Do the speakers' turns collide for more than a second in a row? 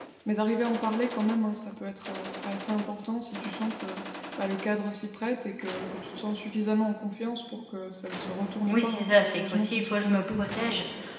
Yes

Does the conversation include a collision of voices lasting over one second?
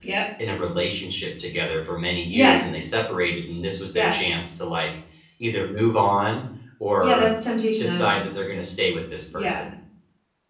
No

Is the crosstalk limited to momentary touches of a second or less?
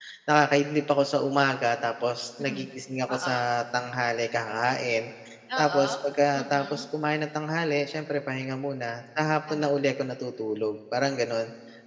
Yes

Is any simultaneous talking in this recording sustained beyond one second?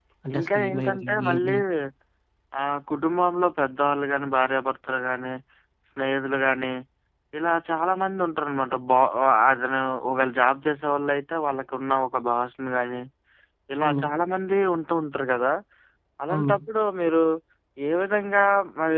Yes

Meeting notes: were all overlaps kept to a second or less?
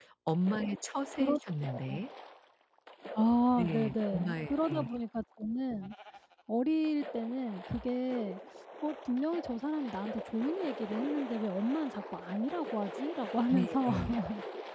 No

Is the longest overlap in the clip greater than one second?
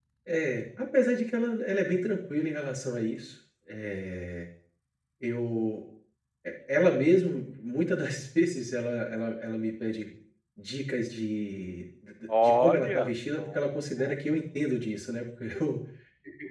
Yes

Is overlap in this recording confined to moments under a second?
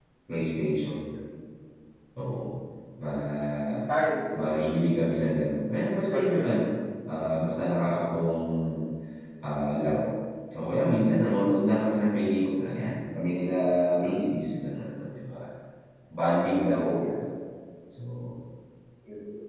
Yes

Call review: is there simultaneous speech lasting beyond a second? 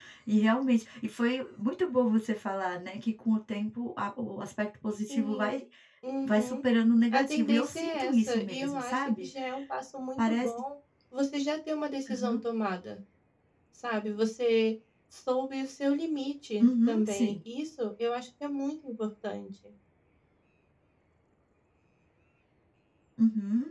Yes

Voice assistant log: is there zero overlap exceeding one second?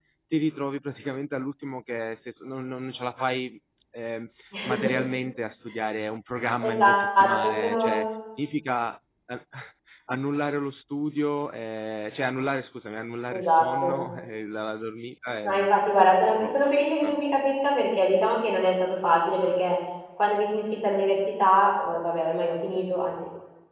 No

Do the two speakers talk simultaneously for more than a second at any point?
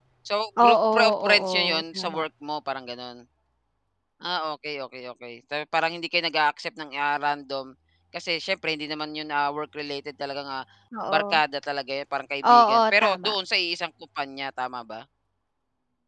Yes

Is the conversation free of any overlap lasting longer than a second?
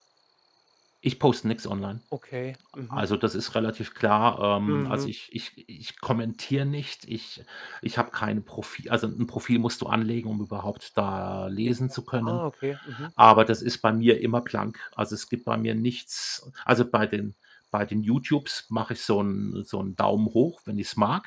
Yes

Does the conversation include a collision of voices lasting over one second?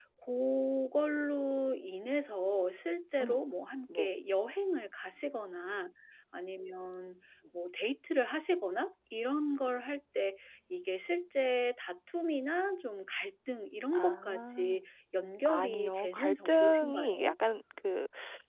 Yes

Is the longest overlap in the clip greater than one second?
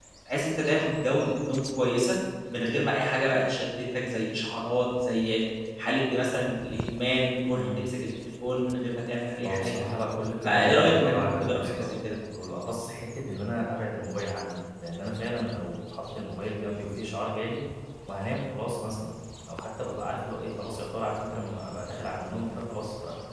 Yes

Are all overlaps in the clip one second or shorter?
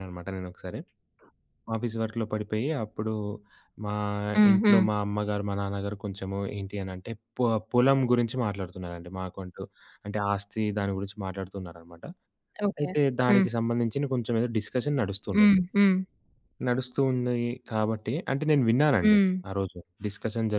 Yes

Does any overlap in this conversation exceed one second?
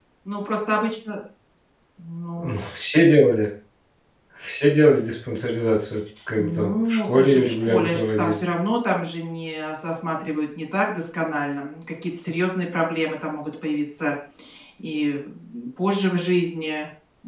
Yes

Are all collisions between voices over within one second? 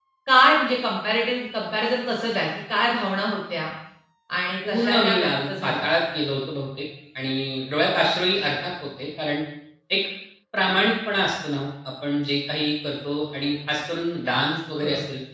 No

